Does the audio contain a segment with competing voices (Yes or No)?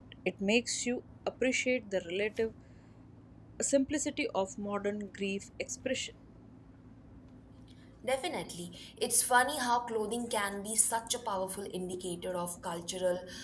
No